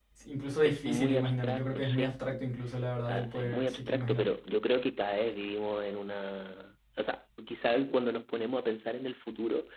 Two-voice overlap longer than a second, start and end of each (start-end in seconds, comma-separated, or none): 0.6-2.1, 3.1-4.3